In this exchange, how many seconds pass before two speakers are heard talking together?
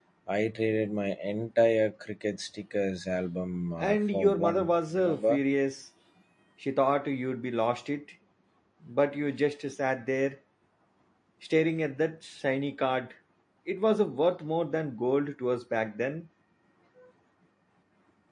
3.8 s

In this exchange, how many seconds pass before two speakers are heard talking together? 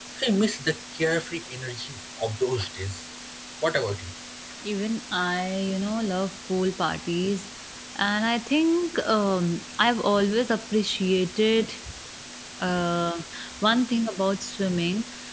none

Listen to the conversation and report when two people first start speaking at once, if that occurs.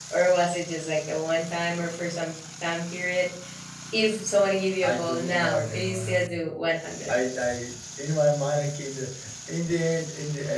4.8 s

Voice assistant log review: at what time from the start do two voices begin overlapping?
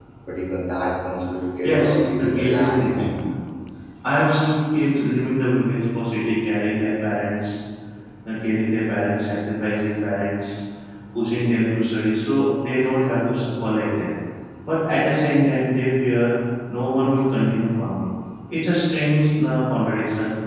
1.6 s

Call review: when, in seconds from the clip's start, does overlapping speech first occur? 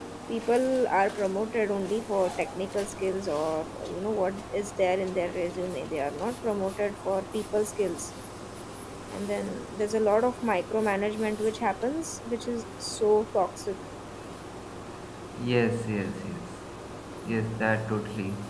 none

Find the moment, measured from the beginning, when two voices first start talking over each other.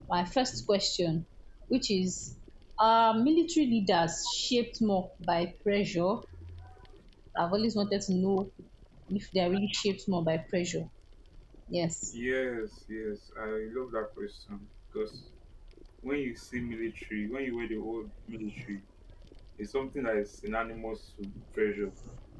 none

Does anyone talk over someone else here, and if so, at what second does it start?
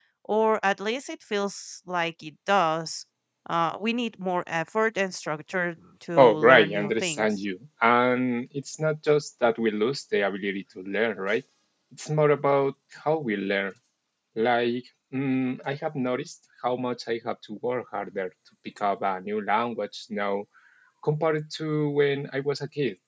6.2 s

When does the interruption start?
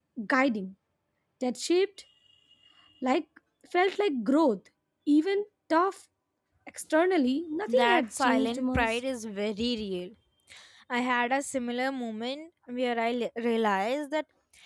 7.7 s

